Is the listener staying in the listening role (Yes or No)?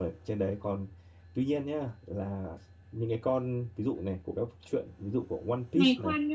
No